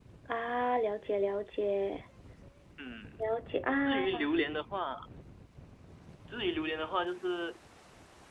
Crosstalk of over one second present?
No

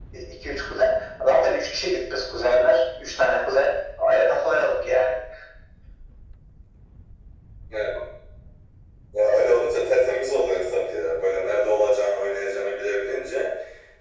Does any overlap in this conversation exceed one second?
No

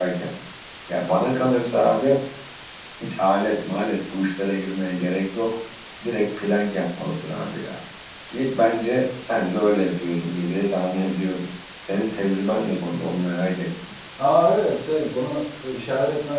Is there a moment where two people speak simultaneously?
No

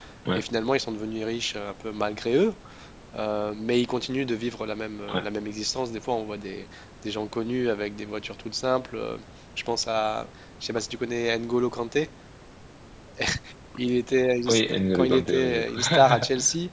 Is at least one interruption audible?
Yes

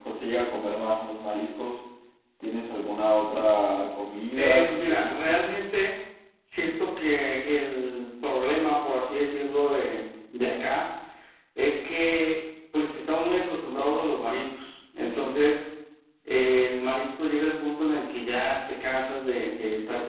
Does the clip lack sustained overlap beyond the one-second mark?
No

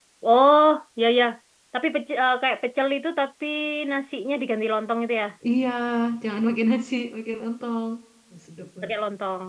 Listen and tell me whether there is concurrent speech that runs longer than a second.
No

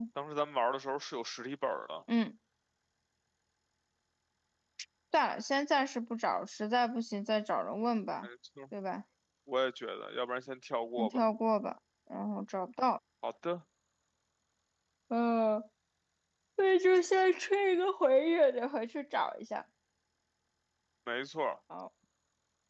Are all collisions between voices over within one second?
Yes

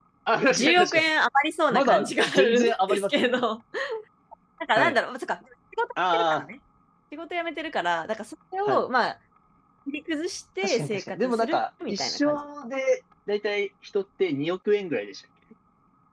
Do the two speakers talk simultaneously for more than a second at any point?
Yes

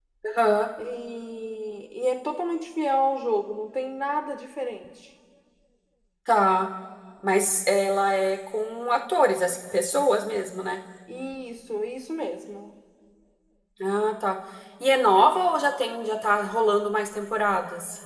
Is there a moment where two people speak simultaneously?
No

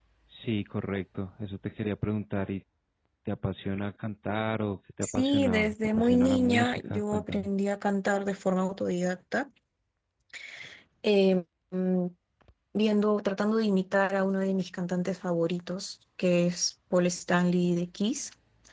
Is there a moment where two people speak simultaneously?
Yes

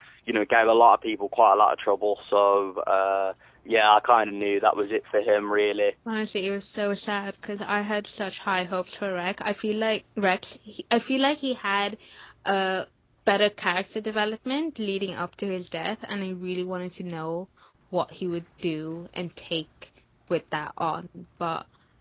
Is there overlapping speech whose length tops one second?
No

